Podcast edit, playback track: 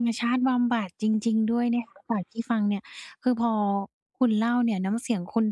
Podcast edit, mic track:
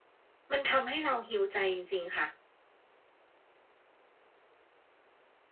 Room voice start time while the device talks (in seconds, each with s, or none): 0.5 s